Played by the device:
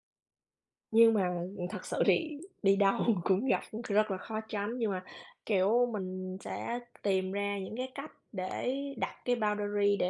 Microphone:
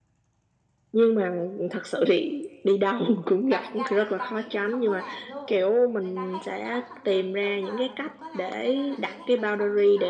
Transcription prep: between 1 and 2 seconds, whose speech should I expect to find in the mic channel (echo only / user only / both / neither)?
echo only